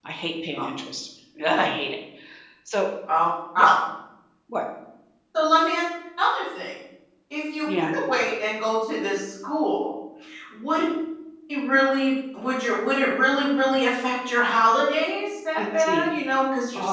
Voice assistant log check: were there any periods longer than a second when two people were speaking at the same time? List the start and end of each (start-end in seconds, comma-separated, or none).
none